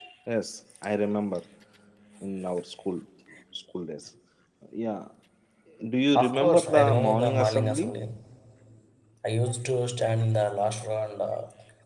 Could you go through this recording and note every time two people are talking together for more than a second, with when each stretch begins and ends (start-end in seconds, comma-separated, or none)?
6.1-8.0